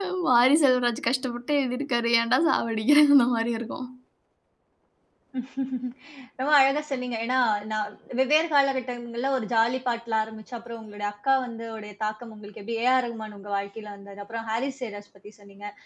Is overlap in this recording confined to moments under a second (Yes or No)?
Yes